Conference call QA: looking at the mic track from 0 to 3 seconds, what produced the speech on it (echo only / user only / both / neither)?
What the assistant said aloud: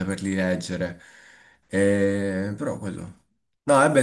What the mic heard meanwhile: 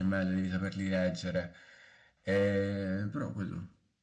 echo only